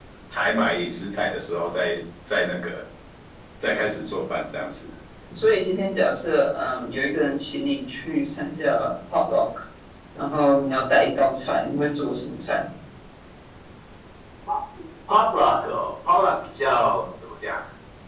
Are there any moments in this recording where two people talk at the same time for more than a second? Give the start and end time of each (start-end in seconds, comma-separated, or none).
none